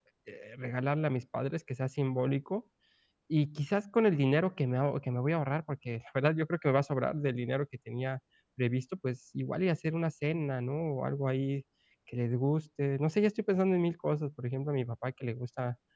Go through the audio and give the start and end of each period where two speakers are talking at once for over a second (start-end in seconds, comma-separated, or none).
none